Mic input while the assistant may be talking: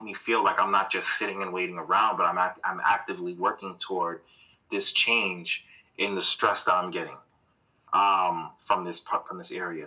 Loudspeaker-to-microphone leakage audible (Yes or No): Yes